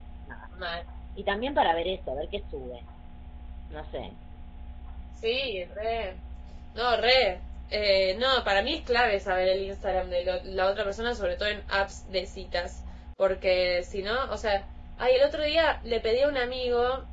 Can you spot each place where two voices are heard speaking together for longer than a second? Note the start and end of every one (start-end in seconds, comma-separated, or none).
none